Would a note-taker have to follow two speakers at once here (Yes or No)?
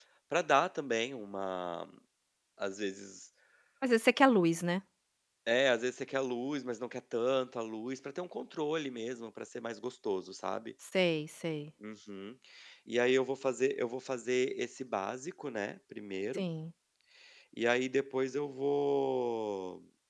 No